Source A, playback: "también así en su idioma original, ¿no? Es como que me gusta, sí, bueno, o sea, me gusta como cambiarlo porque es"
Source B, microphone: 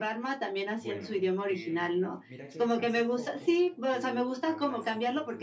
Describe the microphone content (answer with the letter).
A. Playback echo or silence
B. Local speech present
B